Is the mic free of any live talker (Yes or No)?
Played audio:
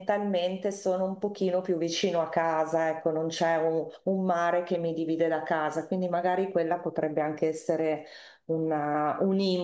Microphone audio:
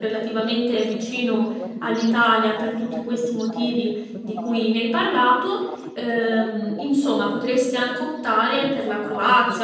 No